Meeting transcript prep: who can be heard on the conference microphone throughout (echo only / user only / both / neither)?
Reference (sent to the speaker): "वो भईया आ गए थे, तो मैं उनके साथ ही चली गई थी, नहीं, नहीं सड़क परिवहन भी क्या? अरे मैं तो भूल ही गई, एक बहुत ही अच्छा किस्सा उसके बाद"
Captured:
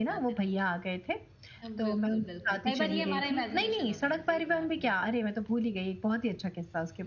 both